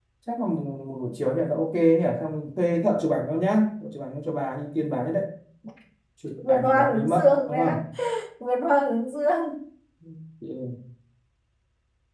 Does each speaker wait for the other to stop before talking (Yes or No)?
No